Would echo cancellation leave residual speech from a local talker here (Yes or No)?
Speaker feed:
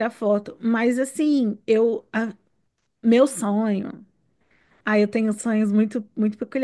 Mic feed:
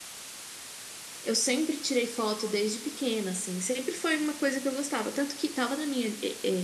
Yes